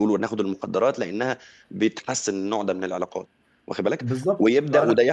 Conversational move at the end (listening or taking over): listening